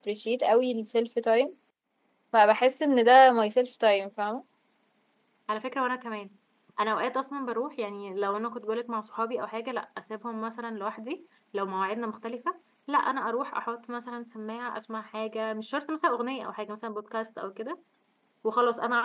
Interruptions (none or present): none